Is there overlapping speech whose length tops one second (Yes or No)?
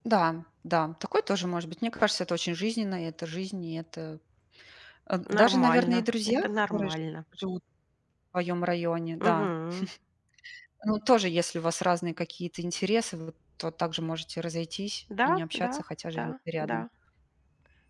Yes